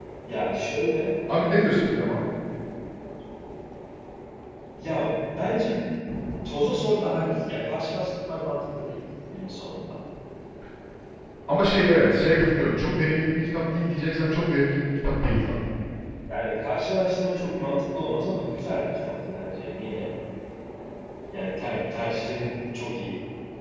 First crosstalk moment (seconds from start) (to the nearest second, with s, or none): none